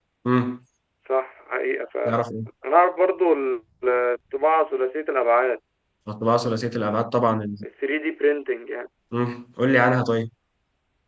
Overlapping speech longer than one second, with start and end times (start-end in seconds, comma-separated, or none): none